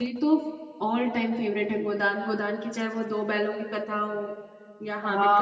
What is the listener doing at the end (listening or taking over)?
taking over